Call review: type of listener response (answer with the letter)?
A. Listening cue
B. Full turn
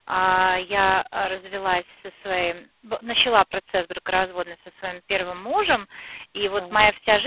A